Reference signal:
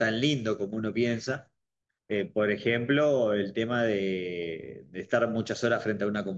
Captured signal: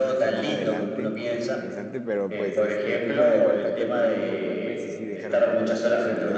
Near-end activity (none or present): present